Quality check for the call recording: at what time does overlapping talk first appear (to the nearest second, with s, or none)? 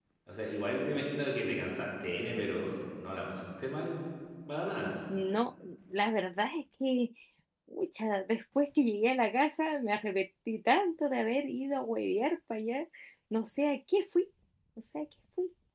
none